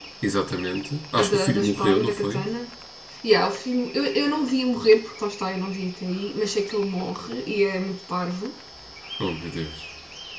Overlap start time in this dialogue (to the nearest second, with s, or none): 1 s